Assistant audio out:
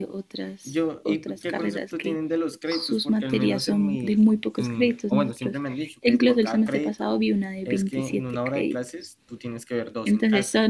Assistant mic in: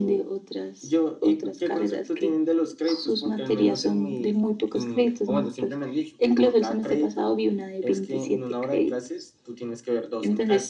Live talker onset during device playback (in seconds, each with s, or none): none